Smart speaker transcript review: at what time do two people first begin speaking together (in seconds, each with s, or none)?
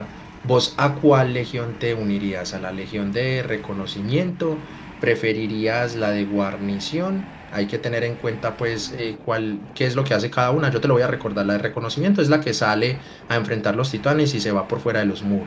none